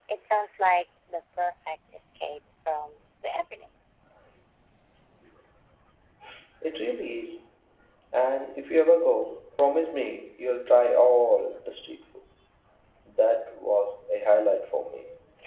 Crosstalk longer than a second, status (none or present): none